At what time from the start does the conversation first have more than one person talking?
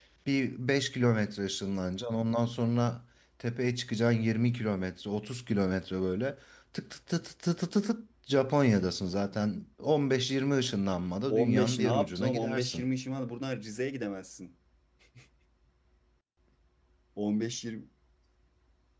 11.3 s

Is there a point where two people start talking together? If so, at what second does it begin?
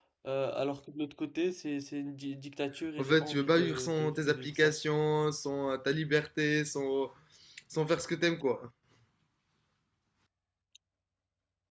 3.0 s

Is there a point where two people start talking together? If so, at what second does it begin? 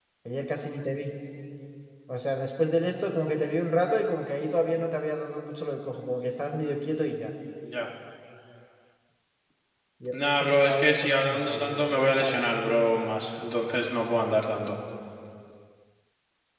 10.2 s

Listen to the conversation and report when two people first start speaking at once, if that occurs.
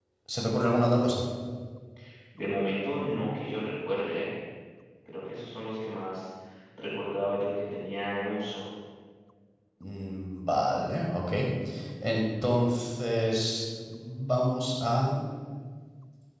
none

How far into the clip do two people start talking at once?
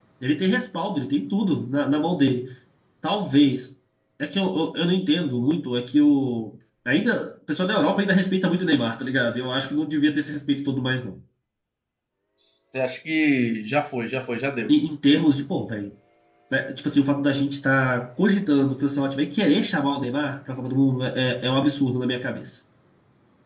none

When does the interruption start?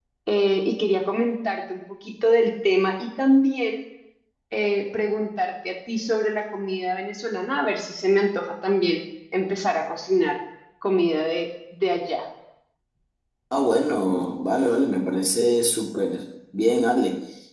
none

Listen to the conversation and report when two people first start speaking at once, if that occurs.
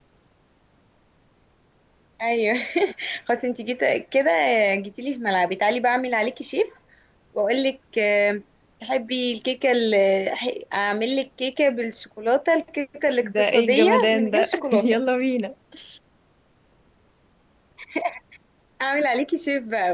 13.2 s

